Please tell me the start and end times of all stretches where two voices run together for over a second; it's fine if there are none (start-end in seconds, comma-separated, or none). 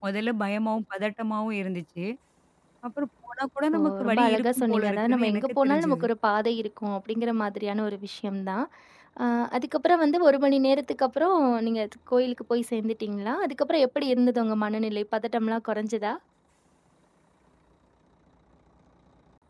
3.8-6.0